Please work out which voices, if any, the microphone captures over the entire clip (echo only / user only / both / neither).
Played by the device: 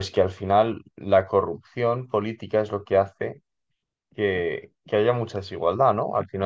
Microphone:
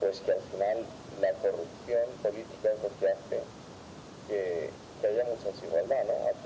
echo only